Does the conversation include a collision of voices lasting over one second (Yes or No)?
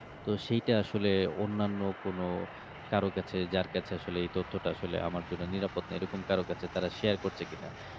No